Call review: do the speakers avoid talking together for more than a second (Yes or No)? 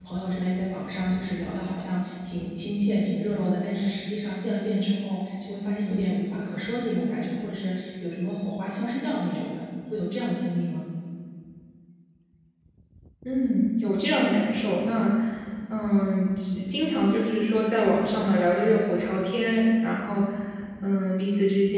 Yes